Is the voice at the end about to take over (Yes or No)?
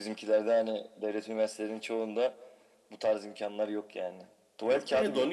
Yes